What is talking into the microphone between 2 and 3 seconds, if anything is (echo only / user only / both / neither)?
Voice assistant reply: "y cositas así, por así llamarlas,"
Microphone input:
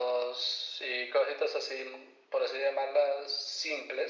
echo only